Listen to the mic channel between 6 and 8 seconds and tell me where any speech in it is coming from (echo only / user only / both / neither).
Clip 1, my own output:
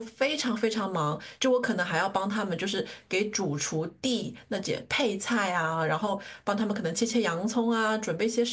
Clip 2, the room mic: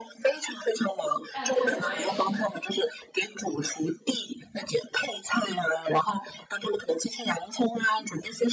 echo only